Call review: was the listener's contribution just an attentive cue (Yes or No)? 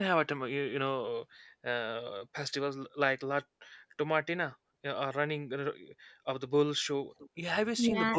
No